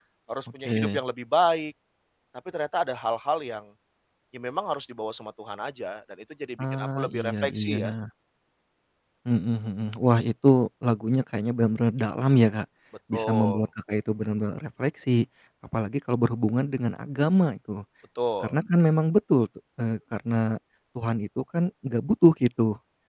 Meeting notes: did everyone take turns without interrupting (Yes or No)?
No